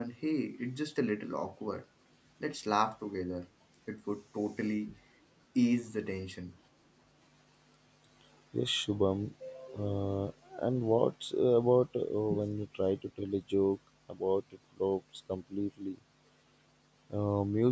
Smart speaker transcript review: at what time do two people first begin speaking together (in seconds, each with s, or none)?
none